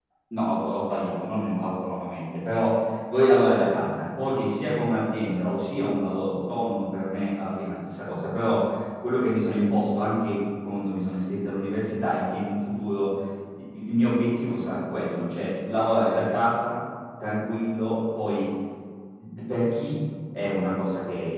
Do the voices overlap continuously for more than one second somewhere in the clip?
No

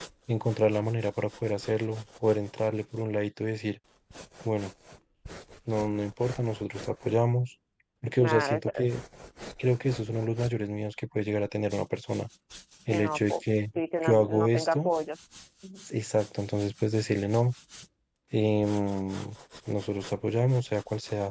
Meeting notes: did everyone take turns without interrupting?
No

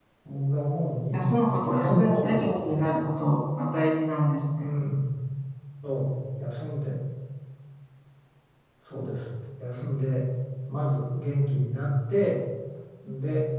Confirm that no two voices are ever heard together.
No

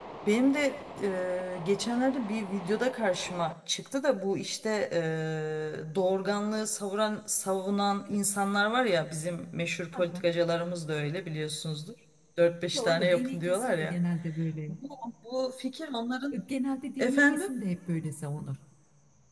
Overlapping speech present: Yes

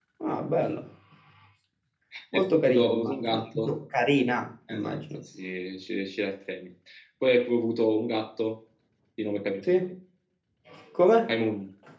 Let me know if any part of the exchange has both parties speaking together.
Yes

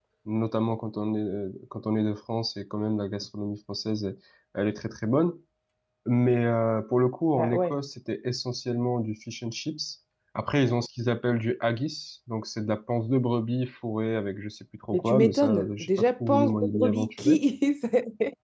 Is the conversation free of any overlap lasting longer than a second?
No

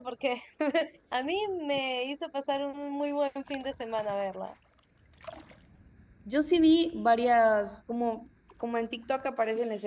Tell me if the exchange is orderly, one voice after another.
Yes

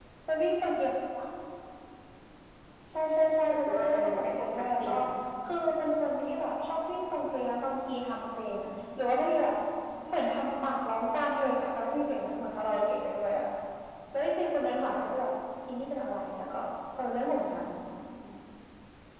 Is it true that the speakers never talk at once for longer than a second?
No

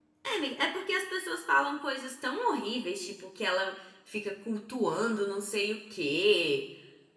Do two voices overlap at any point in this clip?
No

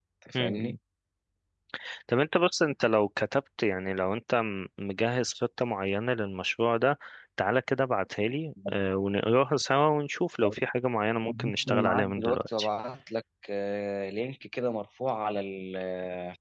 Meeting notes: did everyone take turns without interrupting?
No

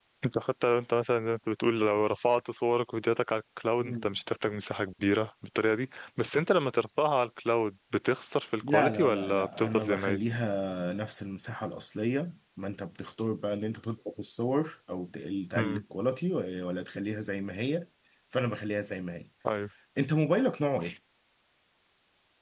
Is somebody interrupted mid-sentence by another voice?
Yes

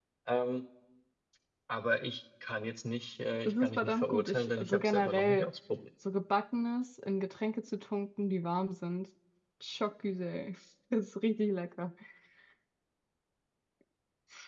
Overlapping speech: Yes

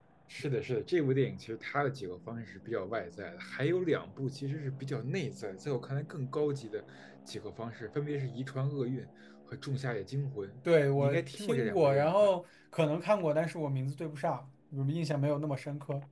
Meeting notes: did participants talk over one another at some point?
Yes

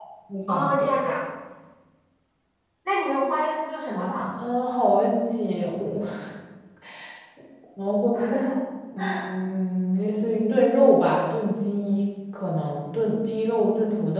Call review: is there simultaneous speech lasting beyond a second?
No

